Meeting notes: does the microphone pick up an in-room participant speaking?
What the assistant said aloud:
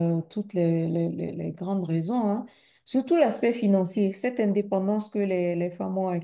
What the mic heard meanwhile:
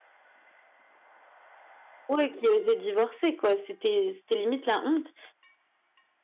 Yes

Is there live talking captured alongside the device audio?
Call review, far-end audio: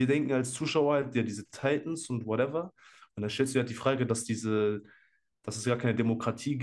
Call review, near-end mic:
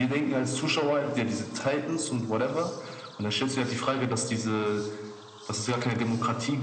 No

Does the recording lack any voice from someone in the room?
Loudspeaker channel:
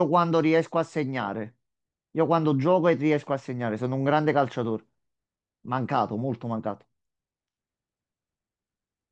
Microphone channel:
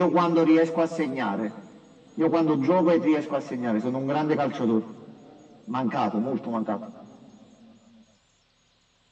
Yes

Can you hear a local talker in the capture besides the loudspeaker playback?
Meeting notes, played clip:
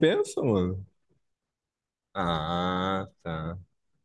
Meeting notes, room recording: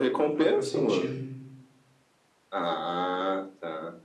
Yes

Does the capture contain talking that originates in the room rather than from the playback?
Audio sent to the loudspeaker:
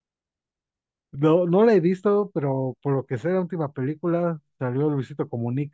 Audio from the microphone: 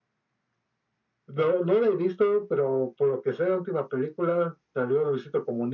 No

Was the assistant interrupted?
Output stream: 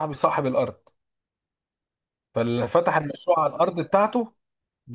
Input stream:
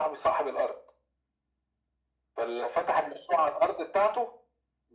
No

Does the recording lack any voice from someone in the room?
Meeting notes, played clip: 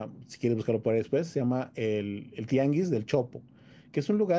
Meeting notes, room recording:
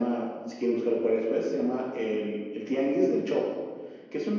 Yes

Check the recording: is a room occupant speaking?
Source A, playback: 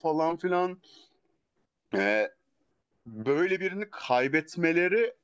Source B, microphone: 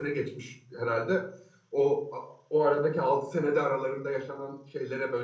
Yes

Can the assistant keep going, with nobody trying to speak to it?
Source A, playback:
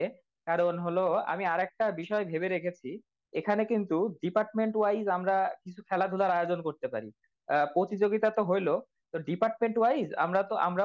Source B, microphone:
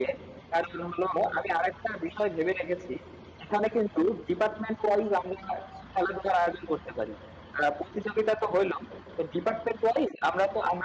Yes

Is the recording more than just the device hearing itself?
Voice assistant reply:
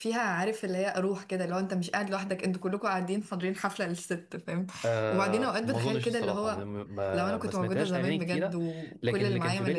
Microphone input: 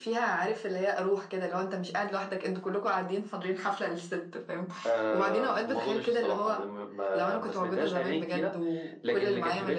No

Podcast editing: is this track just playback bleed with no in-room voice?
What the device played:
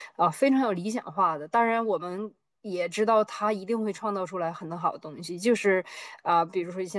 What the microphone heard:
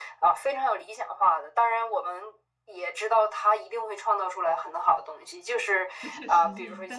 No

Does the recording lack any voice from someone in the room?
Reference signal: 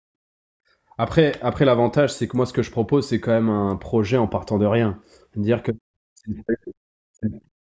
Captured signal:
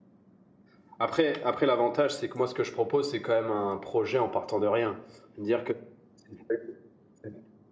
Yes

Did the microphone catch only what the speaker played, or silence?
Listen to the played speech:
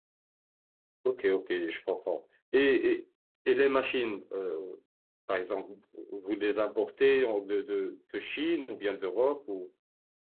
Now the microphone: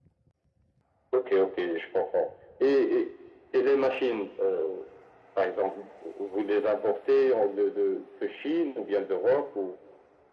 Yes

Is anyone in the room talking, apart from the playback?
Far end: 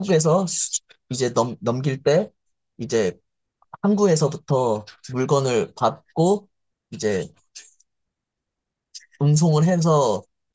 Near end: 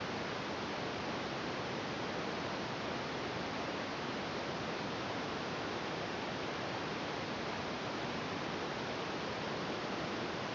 No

